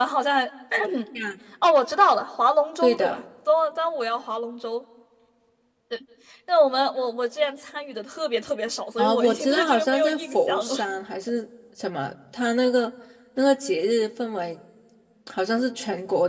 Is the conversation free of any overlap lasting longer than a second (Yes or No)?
No